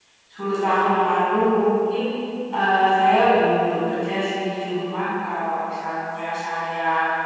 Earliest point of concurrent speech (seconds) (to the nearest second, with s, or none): none